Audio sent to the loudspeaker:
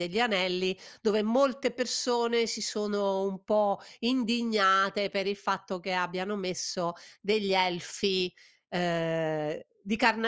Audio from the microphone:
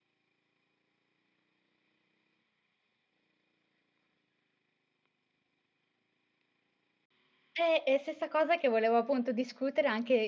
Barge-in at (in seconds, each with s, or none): 7.6 s